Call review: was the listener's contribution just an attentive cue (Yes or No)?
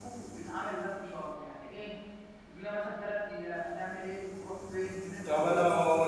No